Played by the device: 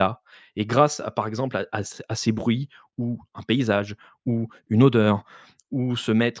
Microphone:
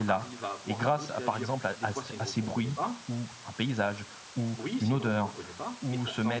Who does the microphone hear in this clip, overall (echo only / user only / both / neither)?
both